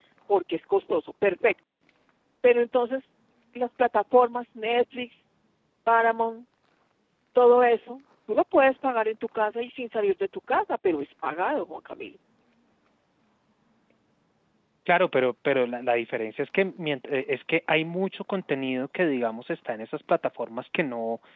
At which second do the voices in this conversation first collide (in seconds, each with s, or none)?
none